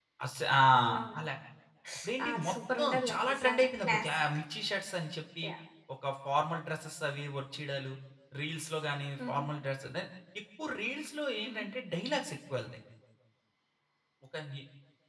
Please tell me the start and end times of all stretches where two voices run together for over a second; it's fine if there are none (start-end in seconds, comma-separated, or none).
2.2-4.1